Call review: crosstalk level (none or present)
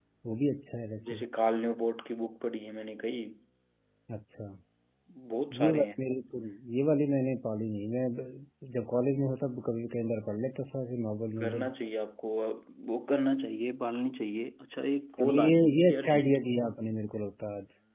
present